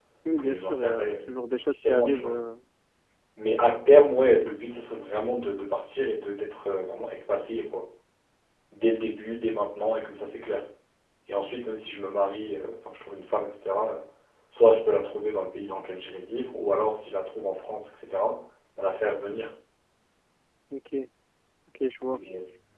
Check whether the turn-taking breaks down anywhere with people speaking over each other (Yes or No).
Yes